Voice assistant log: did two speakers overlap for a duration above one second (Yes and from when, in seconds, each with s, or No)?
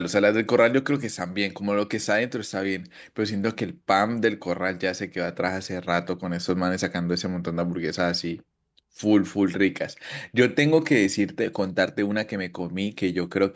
No